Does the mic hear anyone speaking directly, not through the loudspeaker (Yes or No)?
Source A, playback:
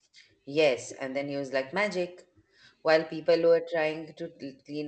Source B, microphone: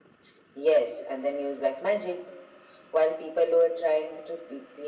No